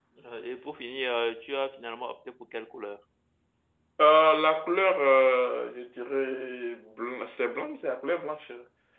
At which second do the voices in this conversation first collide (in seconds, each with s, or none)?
none